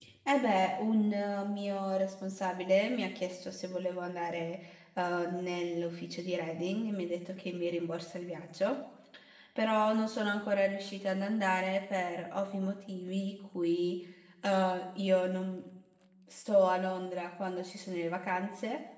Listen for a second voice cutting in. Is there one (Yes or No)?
No